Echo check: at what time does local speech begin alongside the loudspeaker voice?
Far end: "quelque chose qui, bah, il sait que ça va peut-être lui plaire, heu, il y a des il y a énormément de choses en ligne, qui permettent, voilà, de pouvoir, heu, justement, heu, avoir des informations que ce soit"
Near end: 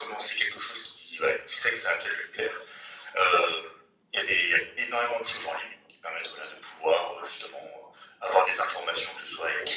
none

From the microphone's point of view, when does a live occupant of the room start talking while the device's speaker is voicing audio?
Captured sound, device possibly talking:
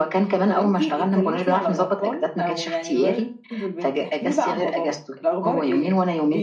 none

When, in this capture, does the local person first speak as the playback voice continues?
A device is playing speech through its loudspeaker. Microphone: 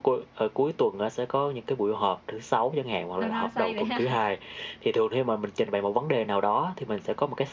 3 s

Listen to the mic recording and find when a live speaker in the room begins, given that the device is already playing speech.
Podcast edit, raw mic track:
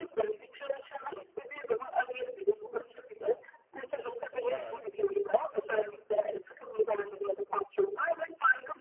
4 s

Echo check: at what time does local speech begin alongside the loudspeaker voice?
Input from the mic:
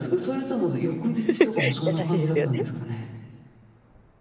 1 s

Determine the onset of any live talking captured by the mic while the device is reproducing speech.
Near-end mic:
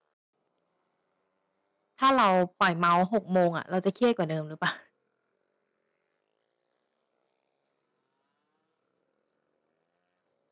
2 s

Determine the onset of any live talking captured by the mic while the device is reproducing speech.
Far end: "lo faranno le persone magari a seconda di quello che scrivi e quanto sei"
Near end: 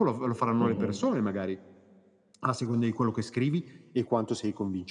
1 s

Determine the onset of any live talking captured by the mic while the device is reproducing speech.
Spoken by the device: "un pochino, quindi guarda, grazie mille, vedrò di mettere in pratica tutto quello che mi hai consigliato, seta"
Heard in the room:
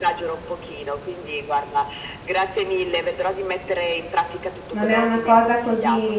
5 s

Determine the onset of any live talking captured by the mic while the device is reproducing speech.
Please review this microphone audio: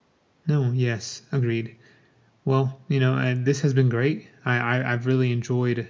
0 s

